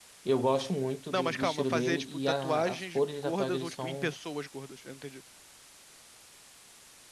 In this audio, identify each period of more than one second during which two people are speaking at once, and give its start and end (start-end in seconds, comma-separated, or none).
1.1-4.1